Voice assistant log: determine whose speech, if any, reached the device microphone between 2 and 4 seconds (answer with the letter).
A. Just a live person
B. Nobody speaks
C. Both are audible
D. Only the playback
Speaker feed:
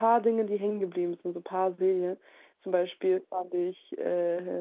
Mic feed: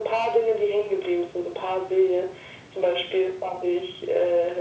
D